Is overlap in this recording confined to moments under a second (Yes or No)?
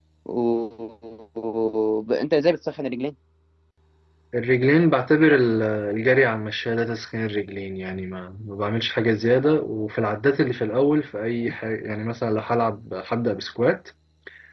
Yes